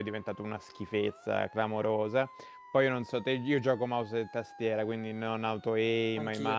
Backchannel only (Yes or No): Yes